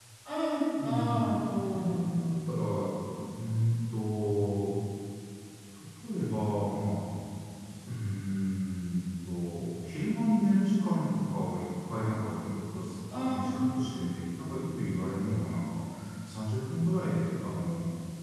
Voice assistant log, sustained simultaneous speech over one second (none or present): present